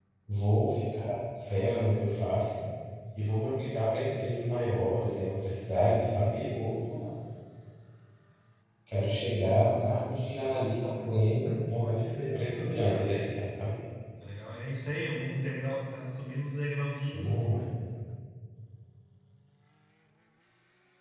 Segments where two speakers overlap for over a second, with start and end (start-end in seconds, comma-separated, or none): 11.8-13.1